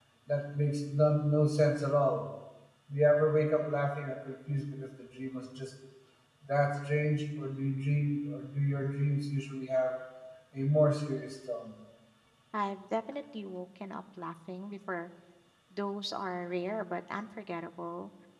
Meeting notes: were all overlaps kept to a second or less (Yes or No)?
Yes